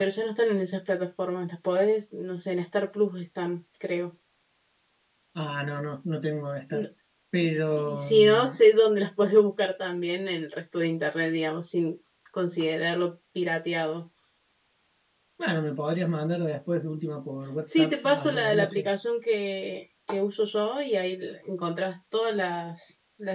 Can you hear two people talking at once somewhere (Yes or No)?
Yes